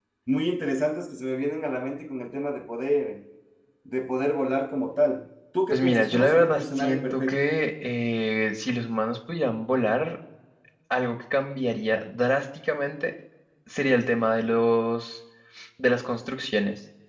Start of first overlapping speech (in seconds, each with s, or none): 5.7 s